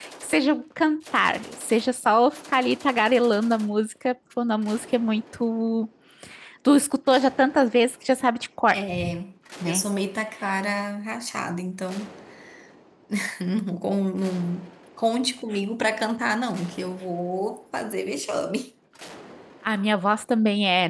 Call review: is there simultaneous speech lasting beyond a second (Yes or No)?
No